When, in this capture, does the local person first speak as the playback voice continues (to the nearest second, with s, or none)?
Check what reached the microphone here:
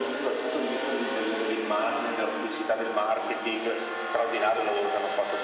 none